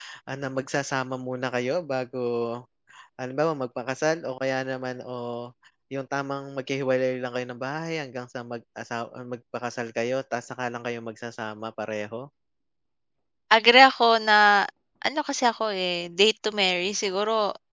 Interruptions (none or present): none